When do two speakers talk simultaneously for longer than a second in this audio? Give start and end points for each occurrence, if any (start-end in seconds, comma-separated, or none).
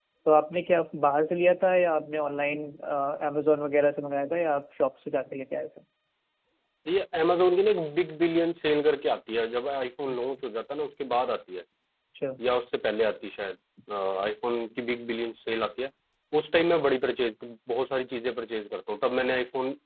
none